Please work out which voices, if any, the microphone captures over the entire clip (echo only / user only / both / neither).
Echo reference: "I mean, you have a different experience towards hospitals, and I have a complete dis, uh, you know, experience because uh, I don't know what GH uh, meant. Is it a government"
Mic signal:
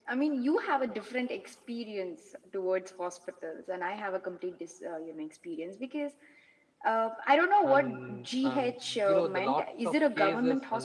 both